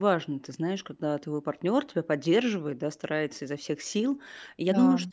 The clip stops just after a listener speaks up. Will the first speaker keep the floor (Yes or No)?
Yes